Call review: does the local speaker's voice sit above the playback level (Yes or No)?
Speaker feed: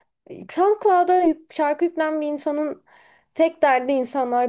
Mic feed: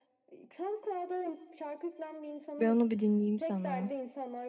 Yes